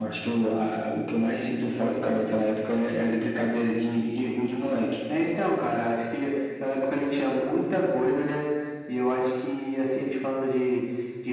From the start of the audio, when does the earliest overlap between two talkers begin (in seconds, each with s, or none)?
none